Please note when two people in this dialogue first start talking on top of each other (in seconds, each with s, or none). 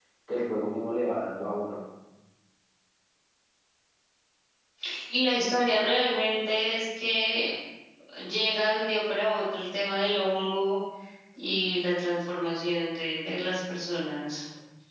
none